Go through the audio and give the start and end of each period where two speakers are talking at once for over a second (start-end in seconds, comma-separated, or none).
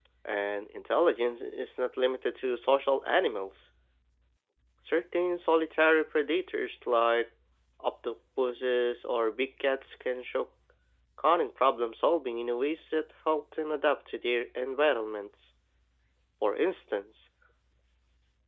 none